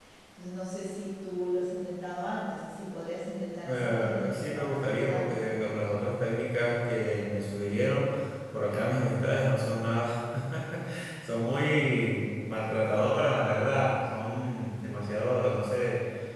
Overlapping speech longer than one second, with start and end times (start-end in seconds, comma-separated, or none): 3.7-5.4